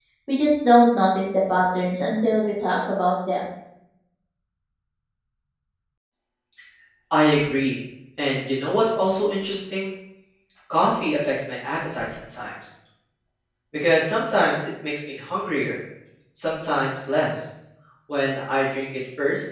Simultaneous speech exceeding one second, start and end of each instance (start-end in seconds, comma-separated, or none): none